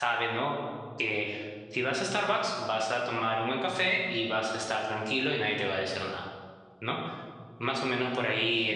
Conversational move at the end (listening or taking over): listening